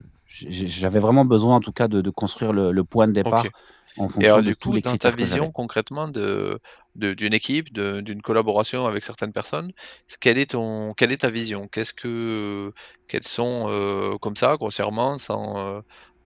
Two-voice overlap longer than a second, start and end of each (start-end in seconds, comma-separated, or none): 4.2-5.5